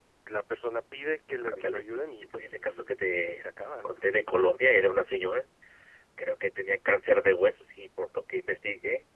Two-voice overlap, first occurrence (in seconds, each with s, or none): 1.4 s